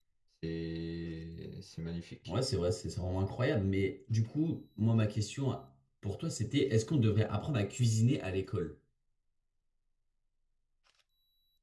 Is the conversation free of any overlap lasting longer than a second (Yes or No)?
Yes